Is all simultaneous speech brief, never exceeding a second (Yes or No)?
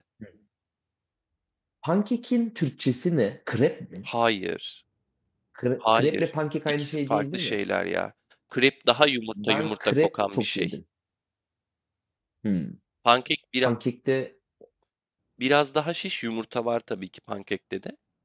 No